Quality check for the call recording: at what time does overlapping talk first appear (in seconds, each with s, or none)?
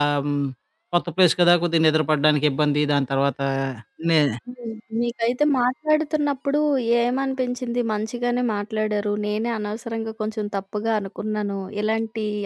none